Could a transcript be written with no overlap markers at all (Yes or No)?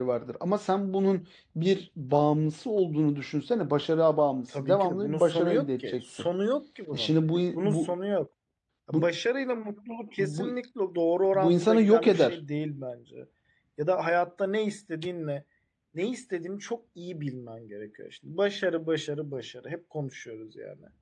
No